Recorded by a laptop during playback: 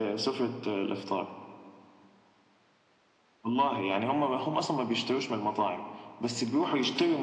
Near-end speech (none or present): none